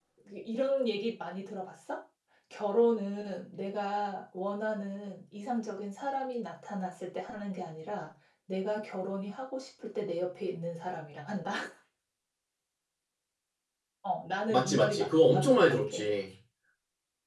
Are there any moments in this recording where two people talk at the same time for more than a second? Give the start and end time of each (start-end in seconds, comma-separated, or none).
14.5-16.1